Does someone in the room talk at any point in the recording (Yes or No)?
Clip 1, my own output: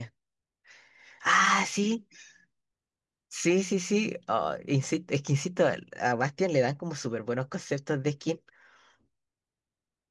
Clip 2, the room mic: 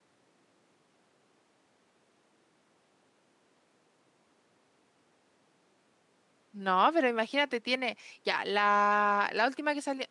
Yes